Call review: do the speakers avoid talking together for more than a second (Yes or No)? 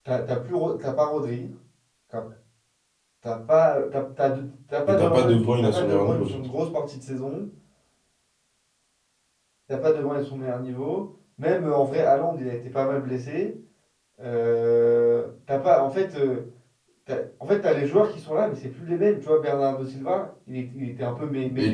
No